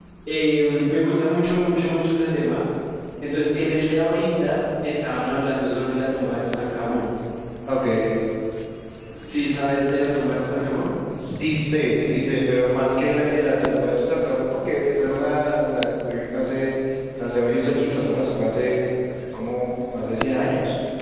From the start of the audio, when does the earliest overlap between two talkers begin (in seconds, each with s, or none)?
none